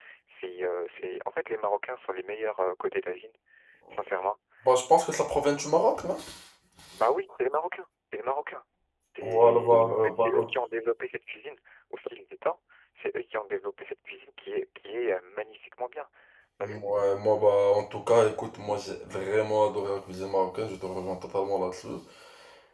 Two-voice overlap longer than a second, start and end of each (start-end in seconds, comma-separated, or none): 9.2-10.5